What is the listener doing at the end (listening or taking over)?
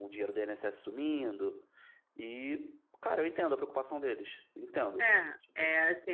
taking over